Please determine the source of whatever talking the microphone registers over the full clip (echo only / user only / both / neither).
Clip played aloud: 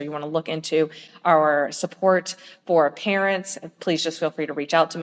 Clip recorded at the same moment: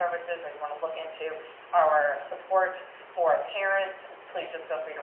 echo only